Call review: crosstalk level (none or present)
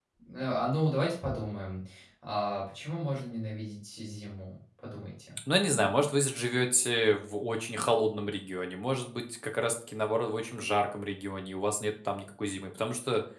none